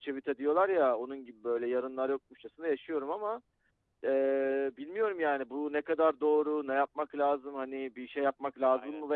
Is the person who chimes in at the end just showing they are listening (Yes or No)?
Yes